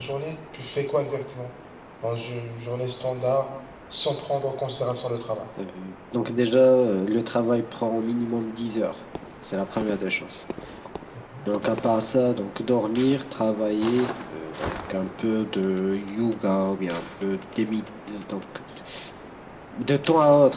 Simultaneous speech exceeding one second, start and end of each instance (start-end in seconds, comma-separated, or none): none